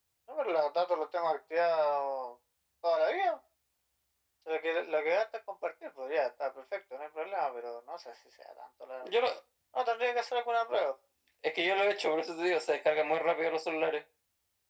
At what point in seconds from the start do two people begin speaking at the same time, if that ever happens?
none

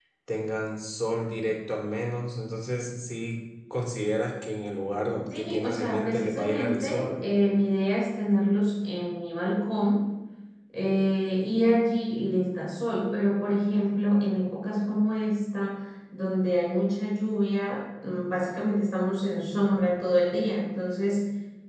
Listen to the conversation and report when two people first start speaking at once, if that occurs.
5.3 s

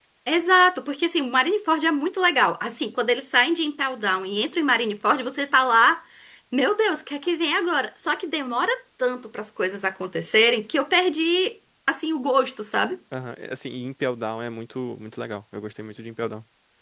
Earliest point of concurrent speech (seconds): none

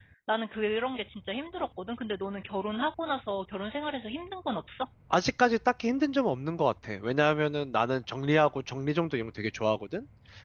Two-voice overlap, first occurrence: none

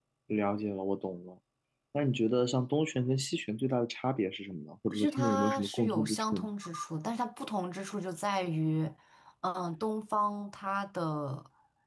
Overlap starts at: 4.9 s

